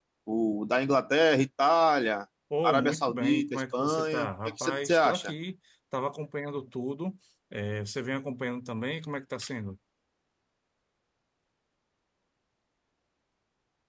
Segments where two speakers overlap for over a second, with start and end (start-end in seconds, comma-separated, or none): 2.6-5.3